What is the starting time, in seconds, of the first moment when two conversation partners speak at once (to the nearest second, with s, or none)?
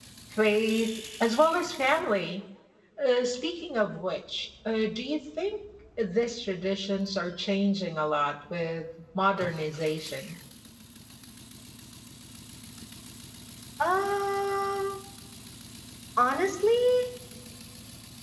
none